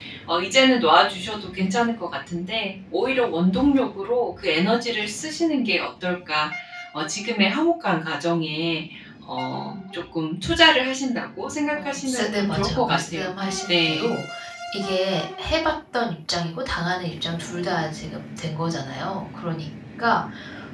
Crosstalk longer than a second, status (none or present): present